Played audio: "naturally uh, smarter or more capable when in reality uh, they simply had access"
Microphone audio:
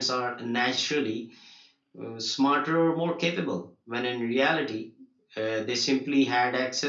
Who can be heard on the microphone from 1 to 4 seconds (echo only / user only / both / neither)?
echo only